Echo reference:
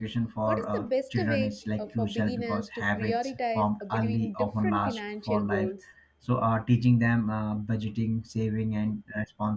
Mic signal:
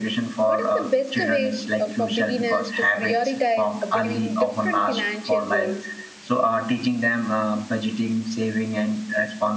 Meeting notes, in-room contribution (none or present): none